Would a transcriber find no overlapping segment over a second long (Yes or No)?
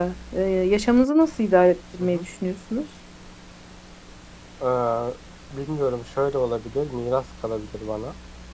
Yes